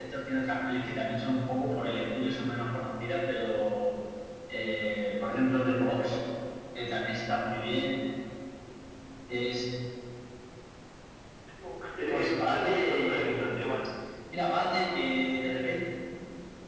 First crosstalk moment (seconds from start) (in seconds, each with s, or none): 12.1 s